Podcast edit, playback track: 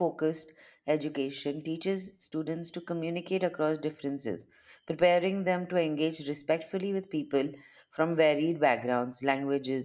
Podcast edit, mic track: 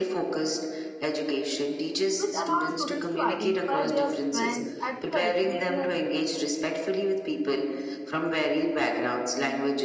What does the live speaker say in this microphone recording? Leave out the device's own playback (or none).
which allows students to identify their strengths, address weakness,